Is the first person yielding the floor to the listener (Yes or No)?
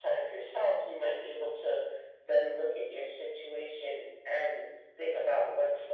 No